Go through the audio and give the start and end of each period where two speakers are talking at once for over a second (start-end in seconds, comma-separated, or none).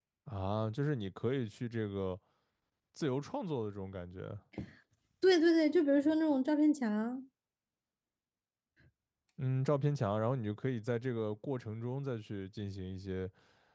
none